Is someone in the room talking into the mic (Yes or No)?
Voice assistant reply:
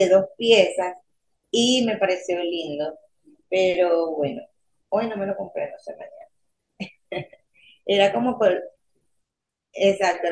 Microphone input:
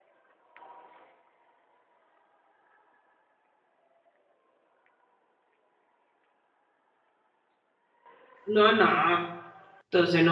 Yes